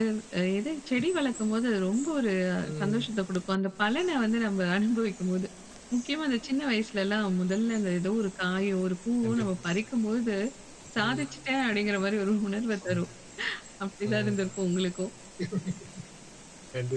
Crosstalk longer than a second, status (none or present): none